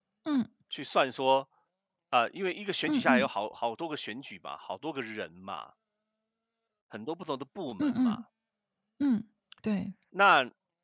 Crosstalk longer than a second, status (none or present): none